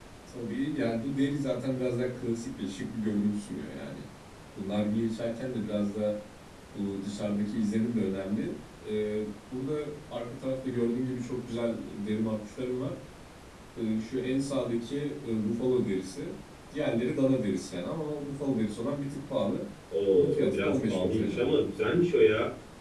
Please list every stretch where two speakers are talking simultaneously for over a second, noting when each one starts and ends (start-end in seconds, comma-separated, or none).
20.1-21.4